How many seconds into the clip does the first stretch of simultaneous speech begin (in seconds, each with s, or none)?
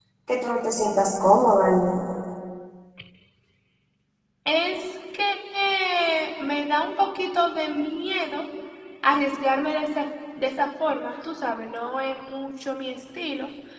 none